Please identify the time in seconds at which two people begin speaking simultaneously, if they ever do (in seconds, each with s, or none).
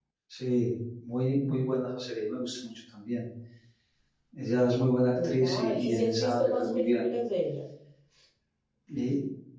5.2 s